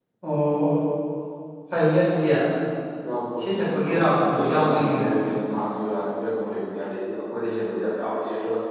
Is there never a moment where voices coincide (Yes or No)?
No